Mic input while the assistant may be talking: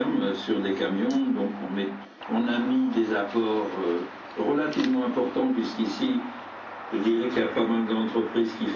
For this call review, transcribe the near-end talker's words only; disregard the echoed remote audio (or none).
none